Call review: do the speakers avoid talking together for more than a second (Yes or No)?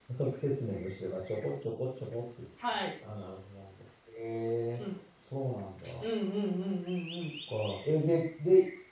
Yes